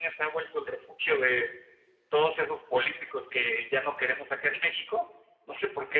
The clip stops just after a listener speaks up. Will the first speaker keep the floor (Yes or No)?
Yes